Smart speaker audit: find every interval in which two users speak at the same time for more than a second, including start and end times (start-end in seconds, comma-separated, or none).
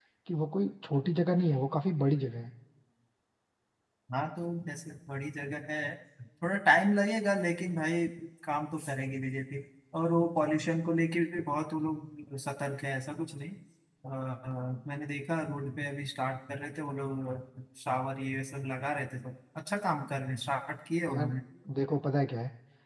none